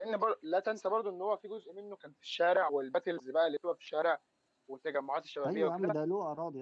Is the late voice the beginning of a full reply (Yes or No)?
Yes